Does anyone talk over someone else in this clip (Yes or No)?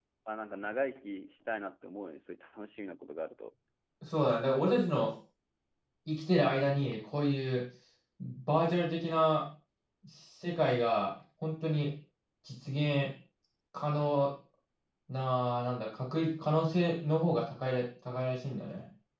No